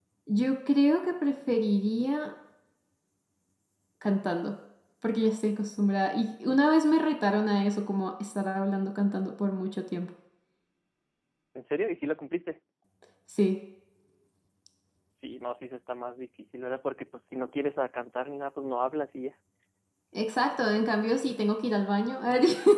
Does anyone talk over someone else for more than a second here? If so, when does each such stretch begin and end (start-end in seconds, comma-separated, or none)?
none